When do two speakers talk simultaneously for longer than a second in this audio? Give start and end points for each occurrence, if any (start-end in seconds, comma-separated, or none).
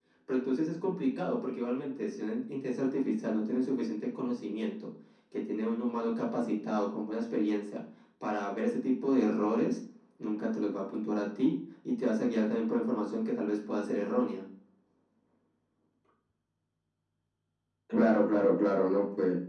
none